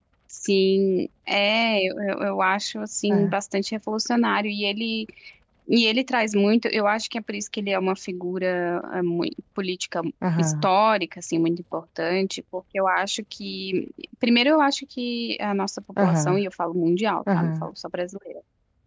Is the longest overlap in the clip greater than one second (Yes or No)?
No